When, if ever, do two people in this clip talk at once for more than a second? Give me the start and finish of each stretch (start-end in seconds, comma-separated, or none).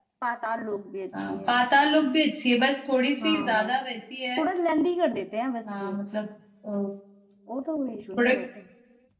none